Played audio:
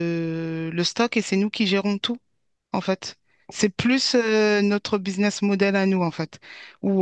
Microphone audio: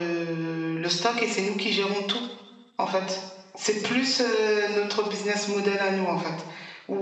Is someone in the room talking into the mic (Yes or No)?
No